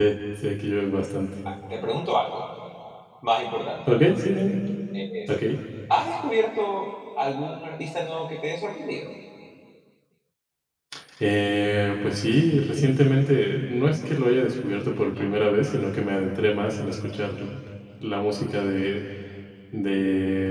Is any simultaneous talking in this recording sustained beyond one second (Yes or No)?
No